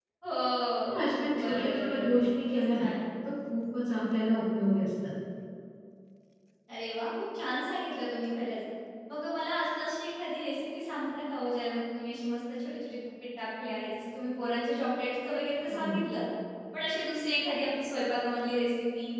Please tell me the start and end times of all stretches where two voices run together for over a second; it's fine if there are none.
1.4-2.9

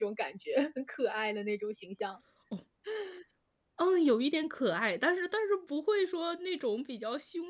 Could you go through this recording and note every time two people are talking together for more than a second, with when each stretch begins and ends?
none

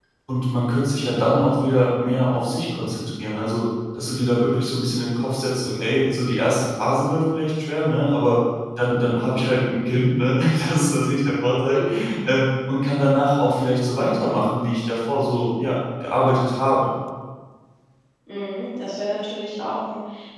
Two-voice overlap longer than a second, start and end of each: none

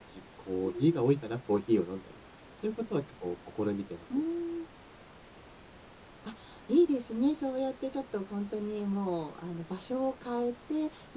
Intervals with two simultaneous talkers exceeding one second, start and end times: none

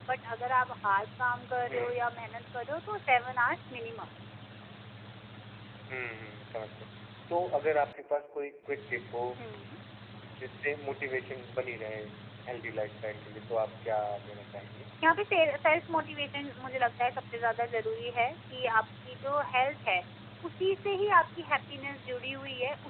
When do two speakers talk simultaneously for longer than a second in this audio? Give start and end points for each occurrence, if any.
none

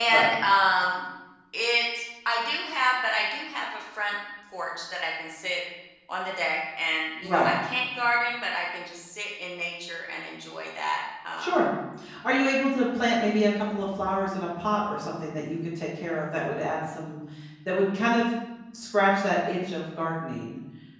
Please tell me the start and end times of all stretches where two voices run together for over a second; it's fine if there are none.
none

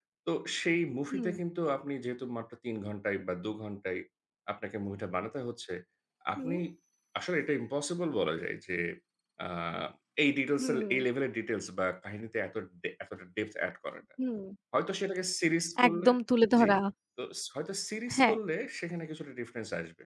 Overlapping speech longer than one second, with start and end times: none

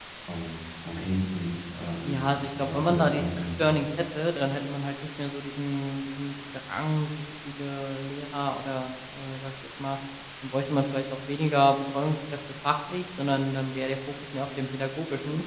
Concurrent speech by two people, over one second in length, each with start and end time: 2.0-3.7

